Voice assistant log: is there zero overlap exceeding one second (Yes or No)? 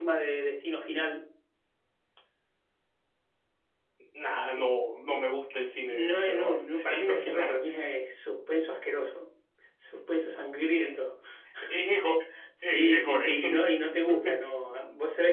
No